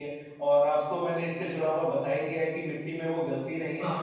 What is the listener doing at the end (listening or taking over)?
listening